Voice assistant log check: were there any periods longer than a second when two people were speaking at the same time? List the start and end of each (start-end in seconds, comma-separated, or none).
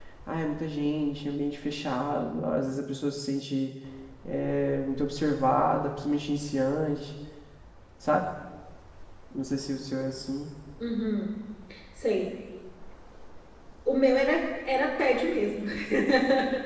none